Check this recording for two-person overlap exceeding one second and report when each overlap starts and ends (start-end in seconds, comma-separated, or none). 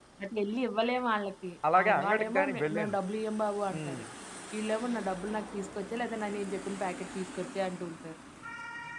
1.8-3.0